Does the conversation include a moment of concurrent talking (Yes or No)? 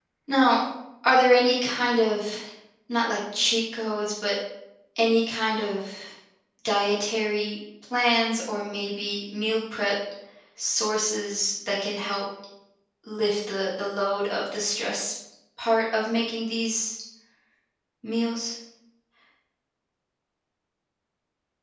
No